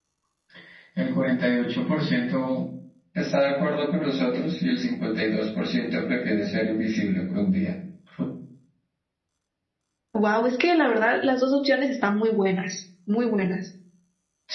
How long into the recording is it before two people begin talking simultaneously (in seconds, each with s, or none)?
none